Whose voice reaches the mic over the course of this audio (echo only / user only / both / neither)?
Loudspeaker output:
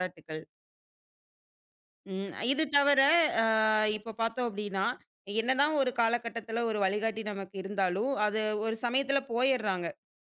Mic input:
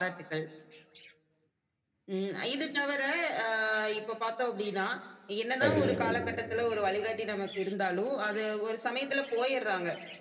both